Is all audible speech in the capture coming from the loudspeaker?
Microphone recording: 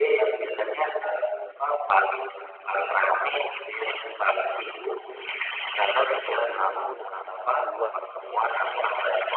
No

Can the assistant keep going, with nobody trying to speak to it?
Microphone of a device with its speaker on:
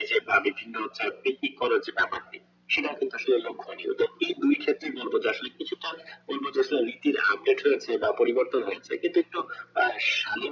Yes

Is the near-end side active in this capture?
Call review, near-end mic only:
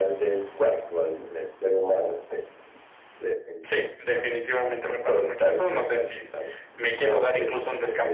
No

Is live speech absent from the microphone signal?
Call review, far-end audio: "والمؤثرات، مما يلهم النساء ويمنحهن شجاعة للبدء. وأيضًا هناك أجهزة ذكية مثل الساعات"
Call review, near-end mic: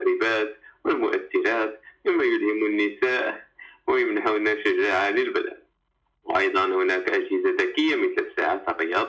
Yes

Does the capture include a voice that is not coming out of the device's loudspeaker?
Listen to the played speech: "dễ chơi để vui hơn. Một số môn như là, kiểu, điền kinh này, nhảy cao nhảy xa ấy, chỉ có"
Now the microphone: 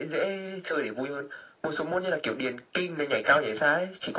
No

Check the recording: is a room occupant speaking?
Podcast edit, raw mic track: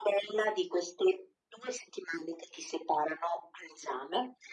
No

